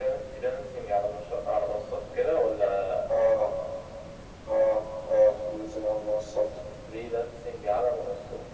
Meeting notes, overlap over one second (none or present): none